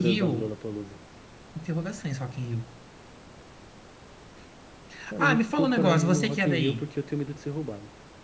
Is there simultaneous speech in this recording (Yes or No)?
Yes